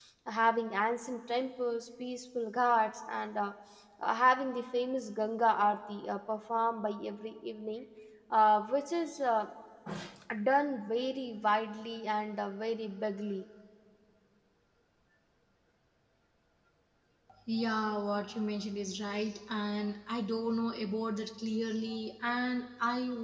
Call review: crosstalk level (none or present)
none